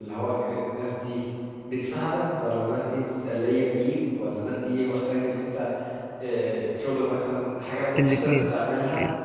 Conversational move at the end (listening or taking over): taking over